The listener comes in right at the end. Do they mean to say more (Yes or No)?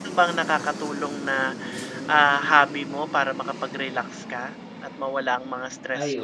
Yes